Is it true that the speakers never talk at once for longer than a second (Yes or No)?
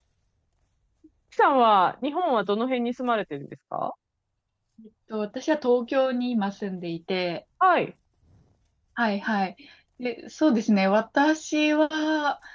Yes